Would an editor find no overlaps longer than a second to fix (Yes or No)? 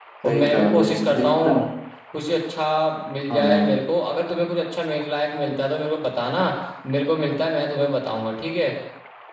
No